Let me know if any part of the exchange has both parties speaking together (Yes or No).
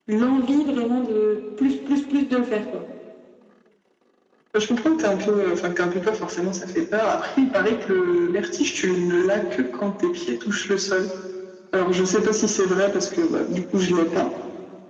No